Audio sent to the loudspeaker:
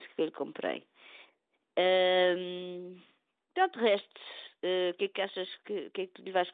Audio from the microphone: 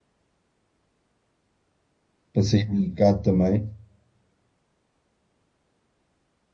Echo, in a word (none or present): none